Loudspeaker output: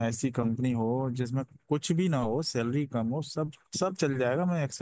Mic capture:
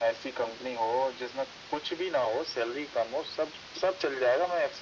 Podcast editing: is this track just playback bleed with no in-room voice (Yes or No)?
Yes